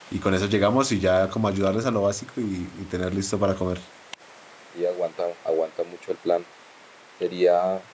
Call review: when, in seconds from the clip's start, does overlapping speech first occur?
none

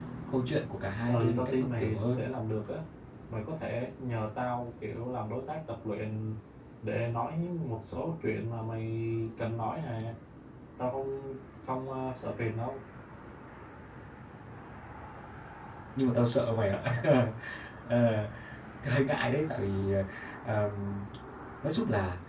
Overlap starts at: 1.0 s

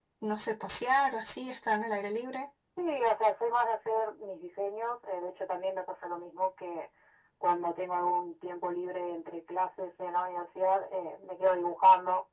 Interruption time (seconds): none

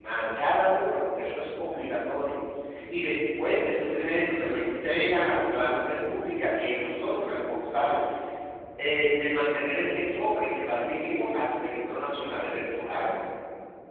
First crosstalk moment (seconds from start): none

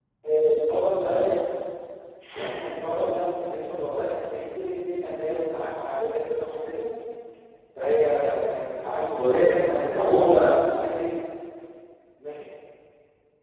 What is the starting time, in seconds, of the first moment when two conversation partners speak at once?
9.2 s

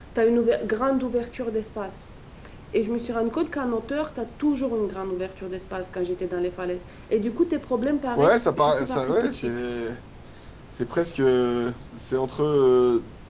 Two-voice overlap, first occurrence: 8.2 s

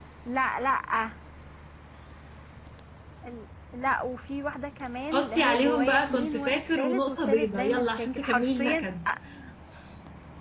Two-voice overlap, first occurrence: 5.1 s

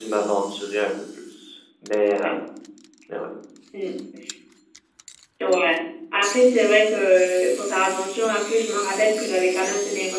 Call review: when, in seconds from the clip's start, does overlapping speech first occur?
none

